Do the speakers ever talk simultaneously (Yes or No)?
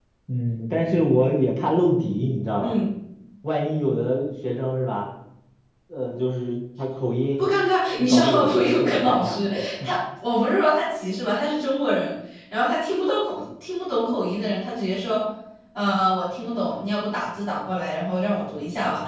Yes